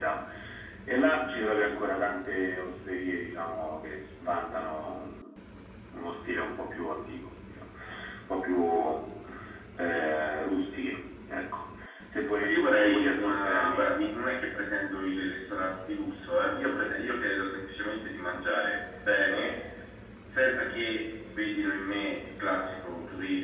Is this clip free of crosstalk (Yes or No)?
No